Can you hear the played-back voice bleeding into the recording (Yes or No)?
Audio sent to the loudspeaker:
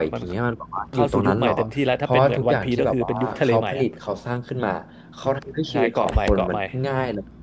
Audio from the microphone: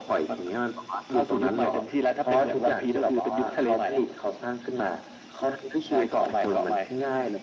Yes